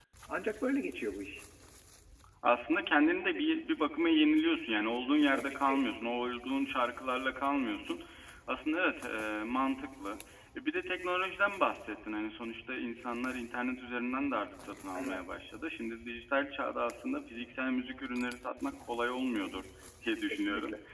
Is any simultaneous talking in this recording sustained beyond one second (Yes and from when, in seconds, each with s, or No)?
No